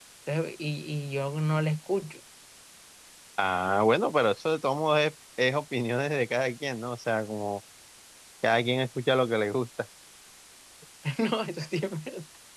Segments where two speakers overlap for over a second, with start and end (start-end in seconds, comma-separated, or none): none